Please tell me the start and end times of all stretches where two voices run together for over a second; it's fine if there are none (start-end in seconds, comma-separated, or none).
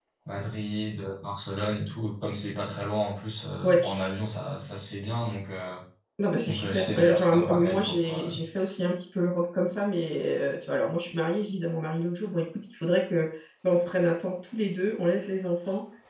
6.5-8.3